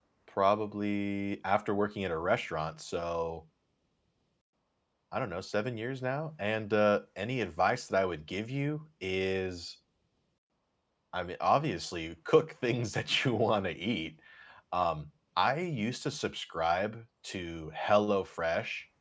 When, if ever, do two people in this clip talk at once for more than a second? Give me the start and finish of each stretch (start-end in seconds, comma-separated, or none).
none